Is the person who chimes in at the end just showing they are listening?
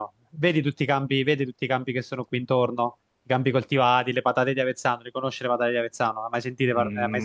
No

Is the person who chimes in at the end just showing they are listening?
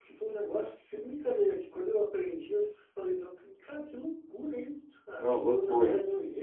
Yes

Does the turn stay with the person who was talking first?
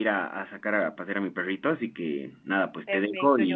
No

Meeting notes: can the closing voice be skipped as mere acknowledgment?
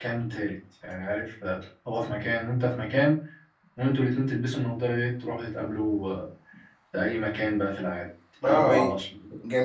No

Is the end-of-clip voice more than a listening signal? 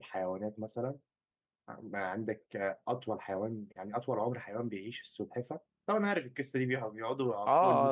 Yes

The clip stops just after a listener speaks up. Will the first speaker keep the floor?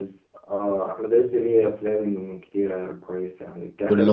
Yes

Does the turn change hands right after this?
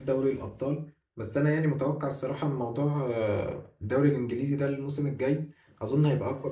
No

